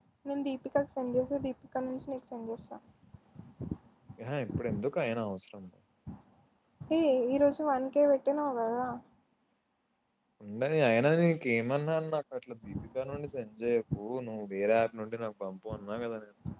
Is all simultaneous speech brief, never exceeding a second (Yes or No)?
Yes